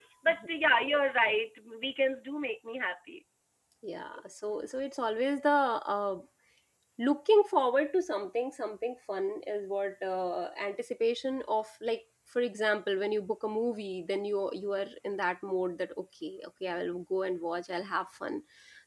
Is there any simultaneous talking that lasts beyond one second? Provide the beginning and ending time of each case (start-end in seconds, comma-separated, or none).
none